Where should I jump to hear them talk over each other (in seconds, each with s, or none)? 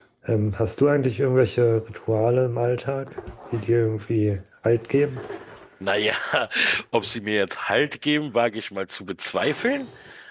none